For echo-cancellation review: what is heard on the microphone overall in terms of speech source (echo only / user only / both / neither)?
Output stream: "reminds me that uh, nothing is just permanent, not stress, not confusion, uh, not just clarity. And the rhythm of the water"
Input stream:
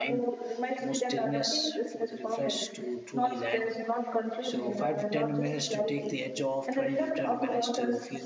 both